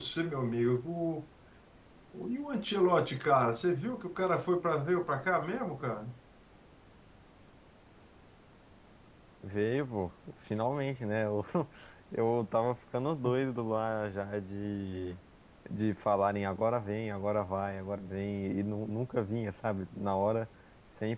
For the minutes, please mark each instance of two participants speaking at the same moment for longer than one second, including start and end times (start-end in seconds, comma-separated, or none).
none